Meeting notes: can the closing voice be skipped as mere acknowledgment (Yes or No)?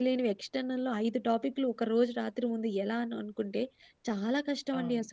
Yes